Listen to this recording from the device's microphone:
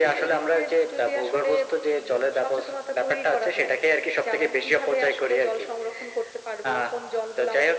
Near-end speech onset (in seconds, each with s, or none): none